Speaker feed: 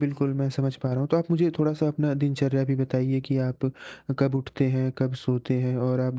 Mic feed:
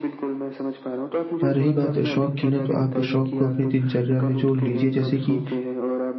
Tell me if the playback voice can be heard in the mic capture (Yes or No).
Yes